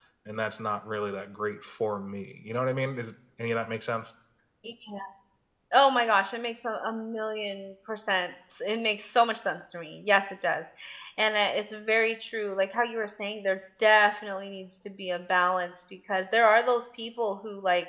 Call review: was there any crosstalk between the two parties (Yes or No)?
No